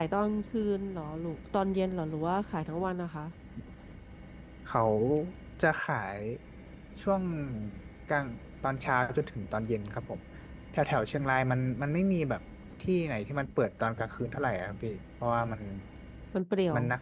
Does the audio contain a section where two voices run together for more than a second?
No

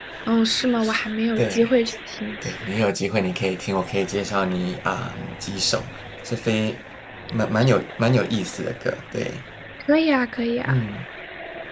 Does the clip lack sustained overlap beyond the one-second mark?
Yes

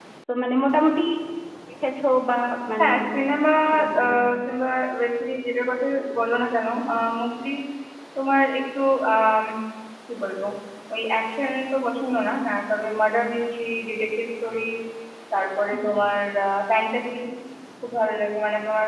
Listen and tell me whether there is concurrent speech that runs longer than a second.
No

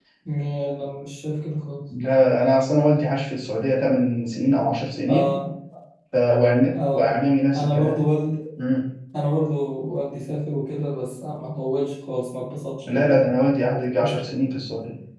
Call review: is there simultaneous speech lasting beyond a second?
No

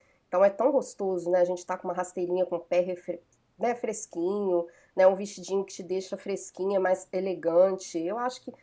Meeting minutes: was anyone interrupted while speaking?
No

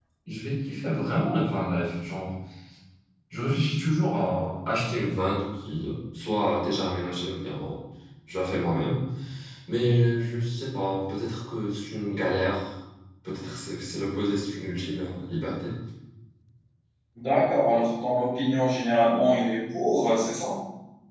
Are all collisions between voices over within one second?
Yes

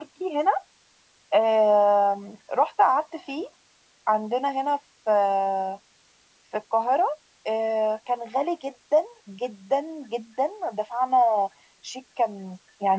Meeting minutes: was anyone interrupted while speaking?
No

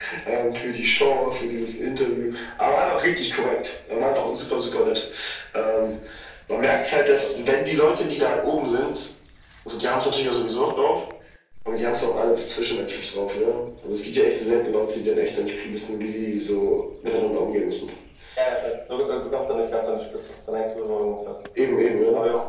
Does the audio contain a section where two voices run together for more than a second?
No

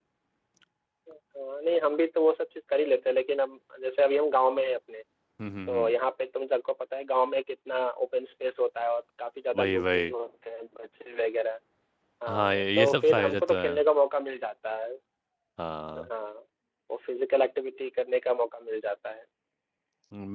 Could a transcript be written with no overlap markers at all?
No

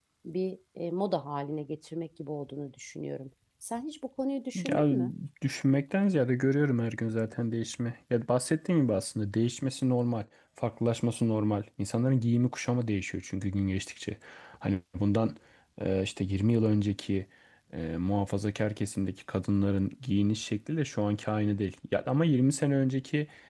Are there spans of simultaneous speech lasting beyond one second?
No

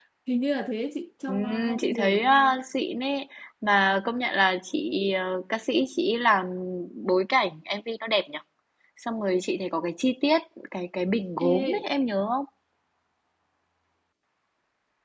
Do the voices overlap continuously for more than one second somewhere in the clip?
Yes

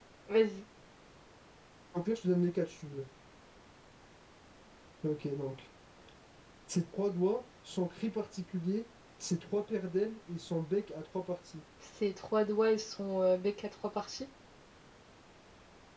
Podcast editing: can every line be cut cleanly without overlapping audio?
Yes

